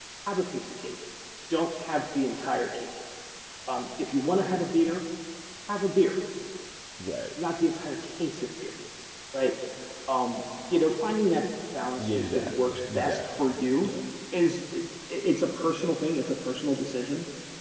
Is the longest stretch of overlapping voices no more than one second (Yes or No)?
No